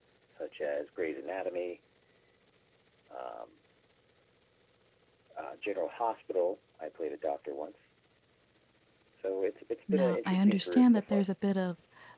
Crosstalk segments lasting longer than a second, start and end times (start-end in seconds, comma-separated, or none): 9.9-11.2